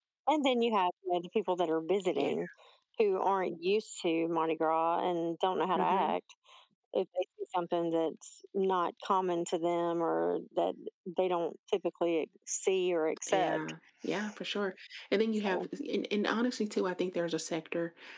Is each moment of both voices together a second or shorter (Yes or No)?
Yes